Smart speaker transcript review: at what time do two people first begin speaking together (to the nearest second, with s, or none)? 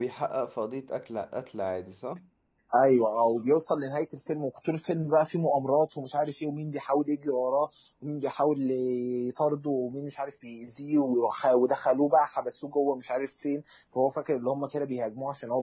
none